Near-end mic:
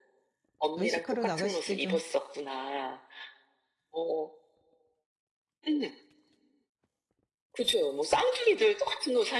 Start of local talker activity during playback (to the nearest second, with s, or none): 1 s